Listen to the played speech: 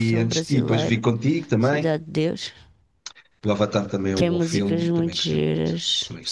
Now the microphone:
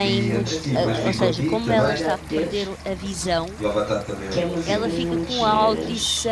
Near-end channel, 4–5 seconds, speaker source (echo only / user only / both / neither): both